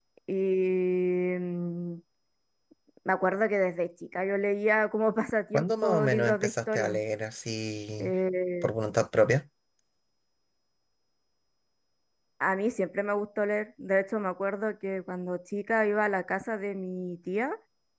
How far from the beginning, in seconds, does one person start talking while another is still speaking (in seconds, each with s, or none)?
5.5 s